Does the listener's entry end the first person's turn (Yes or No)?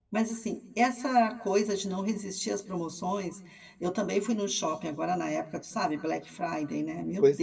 Yes